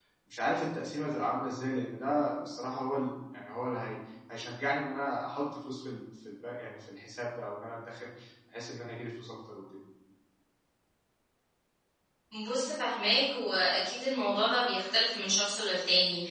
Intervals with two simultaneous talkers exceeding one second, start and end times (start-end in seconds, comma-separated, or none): none